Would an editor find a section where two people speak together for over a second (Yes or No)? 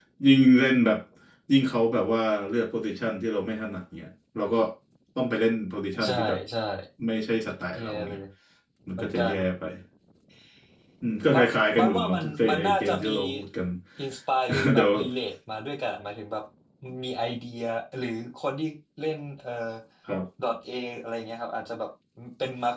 Yes